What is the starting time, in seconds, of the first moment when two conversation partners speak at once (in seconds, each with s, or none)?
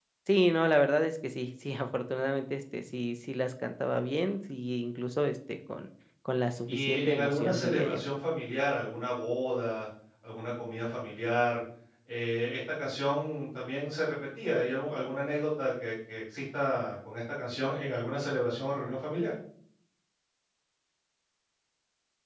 6.7 s